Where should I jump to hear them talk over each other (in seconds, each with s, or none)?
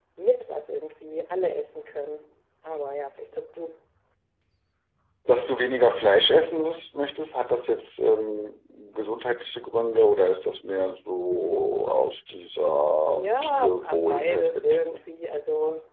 13.1 s